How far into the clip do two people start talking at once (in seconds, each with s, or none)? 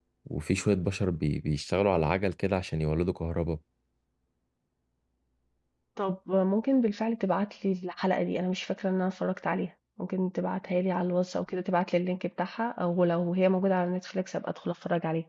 none